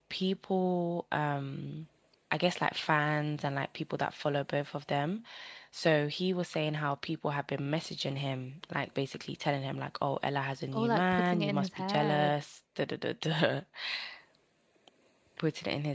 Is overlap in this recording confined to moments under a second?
No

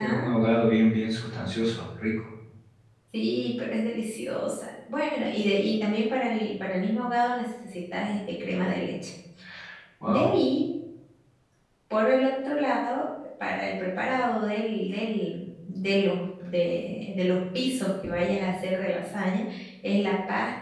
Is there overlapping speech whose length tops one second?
No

